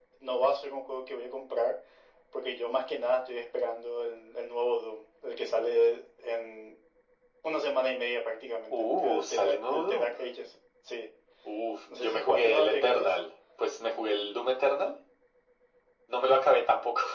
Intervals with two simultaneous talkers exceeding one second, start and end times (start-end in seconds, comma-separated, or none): 8.7-10.2, 11.9-13.2